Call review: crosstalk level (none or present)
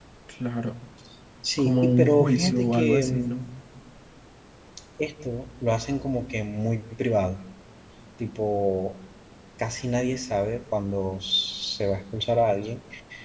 present